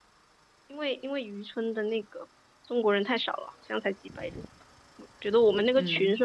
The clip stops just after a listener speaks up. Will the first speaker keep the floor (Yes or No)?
Yes